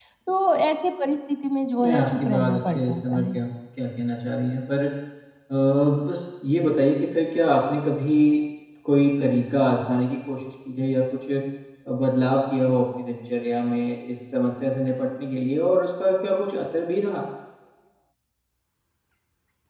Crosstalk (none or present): present